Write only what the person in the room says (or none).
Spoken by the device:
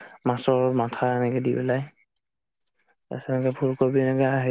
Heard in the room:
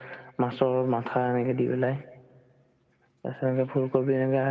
none